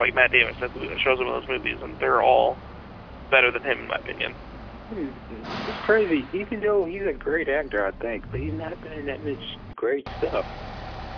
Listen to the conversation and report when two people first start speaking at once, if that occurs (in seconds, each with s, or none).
none